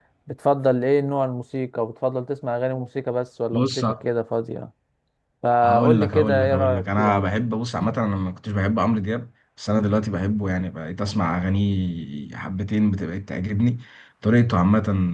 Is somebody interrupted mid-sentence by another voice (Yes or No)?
Yes